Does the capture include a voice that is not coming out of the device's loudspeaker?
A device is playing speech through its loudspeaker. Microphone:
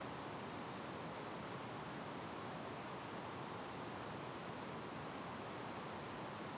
No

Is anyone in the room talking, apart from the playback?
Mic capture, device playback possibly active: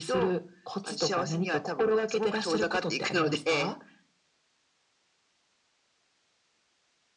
No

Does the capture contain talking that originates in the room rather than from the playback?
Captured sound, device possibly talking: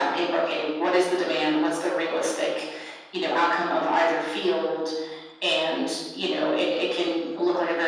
No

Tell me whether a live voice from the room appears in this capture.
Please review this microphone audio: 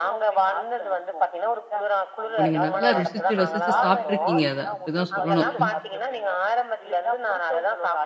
Yes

